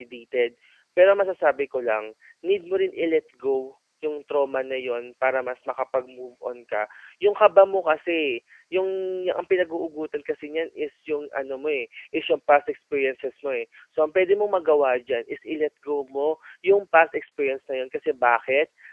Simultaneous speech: No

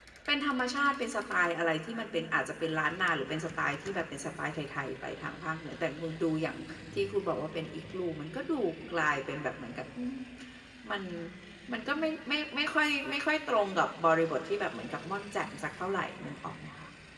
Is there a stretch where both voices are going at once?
No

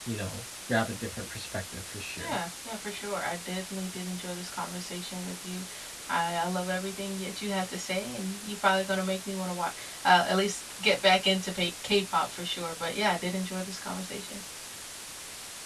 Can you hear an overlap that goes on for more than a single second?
No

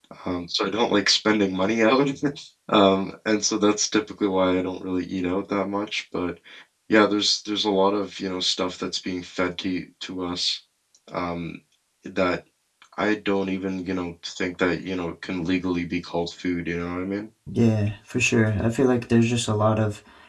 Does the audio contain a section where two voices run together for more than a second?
No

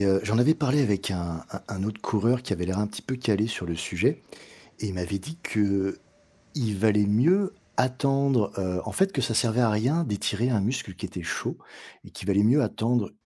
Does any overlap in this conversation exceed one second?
No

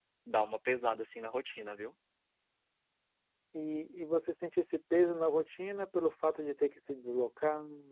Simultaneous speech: No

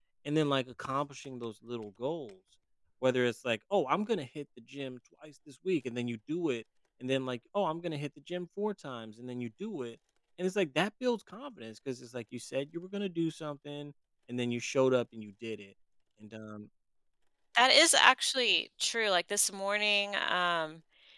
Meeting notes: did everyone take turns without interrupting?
Yes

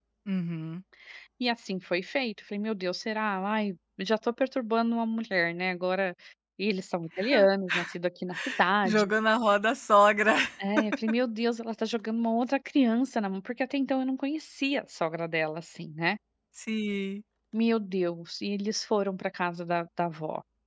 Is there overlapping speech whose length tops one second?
No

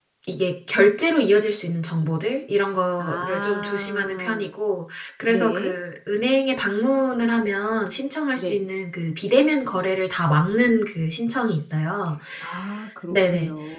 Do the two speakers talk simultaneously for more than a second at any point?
Yes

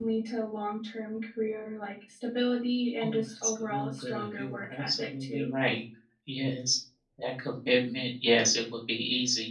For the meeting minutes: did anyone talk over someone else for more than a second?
Yes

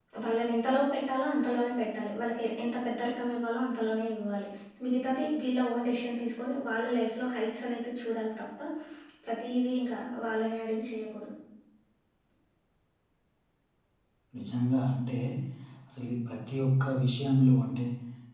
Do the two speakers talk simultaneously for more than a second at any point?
No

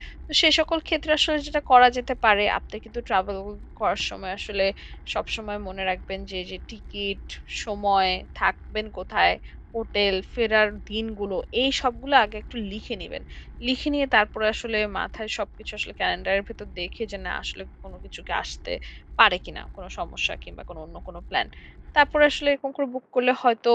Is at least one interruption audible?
No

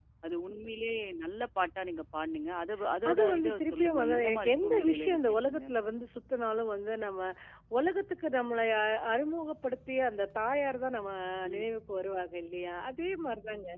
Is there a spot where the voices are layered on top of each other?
Yes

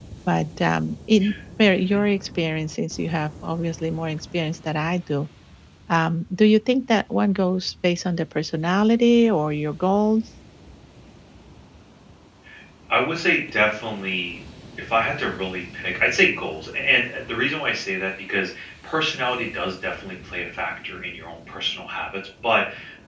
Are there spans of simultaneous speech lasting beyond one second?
No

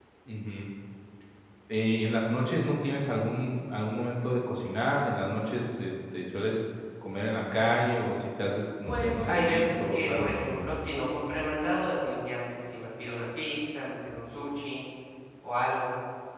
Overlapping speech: Yes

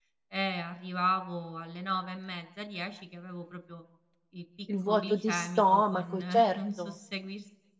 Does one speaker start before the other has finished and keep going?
Yes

